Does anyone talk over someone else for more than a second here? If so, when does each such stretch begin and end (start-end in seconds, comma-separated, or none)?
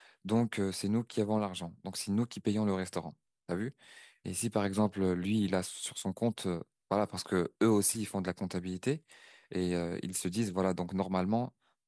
none